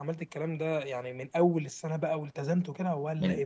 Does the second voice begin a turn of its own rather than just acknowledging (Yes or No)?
Yes